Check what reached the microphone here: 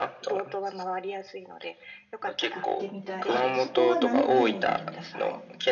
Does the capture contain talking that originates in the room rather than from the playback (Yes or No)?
Yes